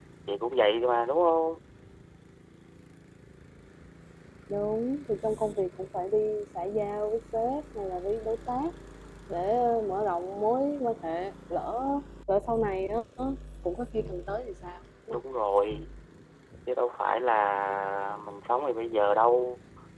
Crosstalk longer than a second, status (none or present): none